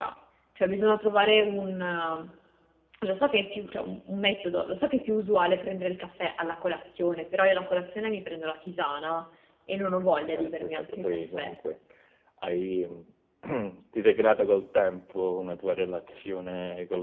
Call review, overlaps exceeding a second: present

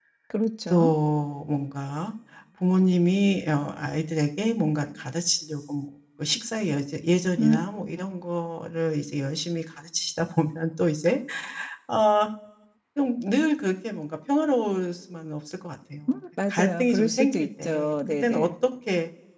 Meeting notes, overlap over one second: present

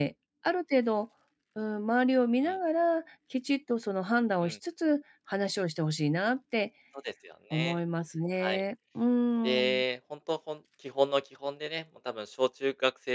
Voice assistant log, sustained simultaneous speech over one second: none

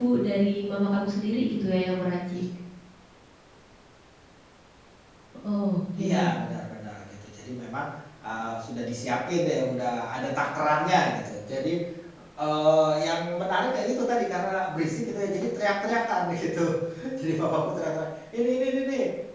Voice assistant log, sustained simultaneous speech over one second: none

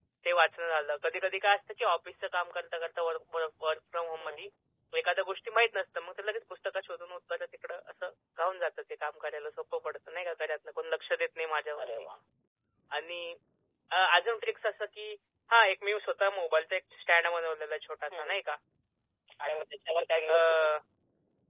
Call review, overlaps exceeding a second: none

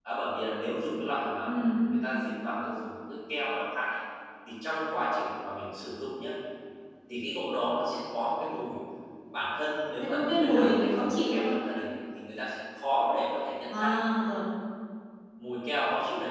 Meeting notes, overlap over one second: present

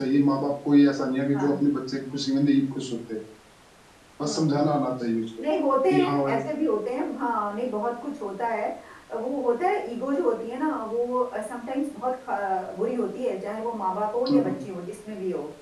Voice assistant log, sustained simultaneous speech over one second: none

